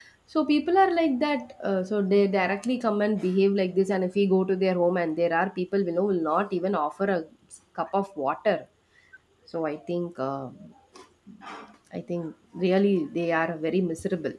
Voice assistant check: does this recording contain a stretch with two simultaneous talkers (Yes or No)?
No